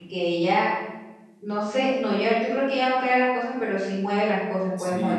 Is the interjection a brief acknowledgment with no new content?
No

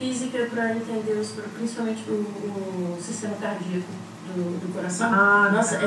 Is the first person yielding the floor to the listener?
No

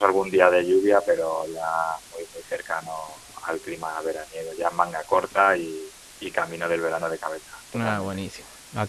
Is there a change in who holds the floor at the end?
Yes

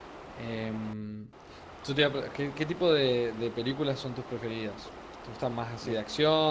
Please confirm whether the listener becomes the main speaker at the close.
No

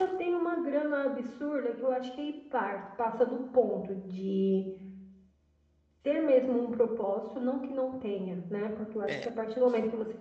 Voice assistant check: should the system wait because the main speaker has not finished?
Yes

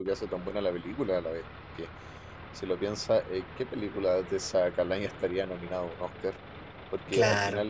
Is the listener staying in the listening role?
Yes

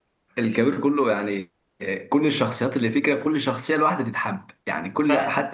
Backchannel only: No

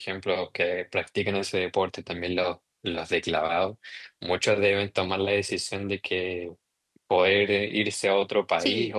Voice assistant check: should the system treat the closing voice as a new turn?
No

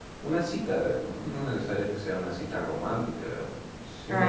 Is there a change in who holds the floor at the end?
Yes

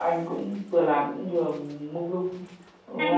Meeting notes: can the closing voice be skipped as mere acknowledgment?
No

